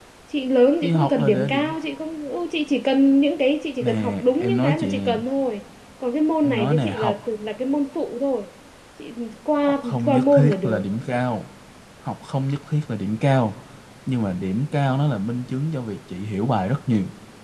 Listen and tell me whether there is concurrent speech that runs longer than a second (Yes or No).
Yes